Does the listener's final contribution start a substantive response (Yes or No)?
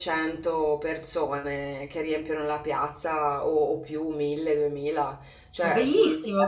Yes